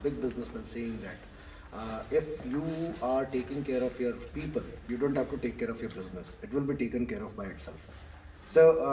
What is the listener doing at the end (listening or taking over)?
listening